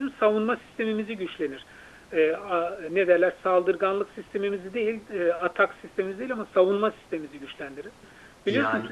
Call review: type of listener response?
listening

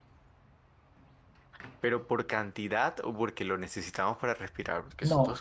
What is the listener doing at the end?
taking over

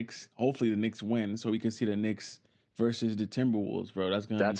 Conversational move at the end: taking over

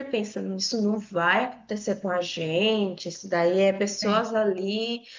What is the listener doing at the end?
listening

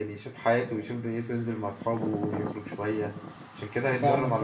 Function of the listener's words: taking over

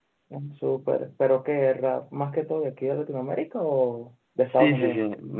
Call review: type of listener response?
taking over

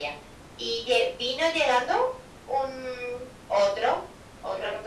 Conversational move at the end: listening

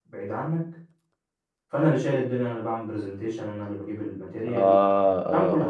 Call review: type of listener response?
taking over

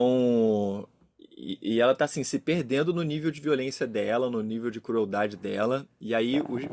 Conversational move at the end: listening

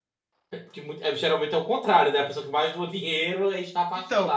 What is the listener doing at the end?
taking over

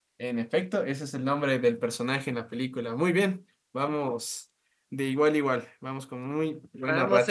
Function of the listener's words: taking over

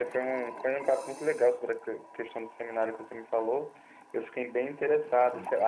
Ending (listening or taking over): listening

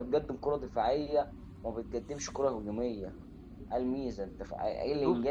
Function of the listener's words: listening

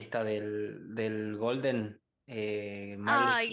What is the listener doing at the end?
taking over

